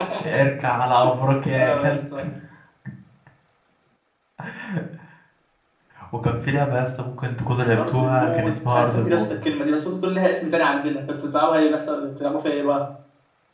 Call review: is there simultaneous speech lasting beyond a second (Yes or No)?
Yes